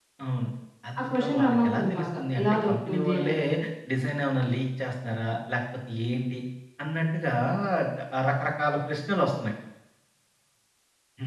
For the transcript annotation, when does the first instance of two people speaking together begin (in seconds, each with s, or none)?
1.0 s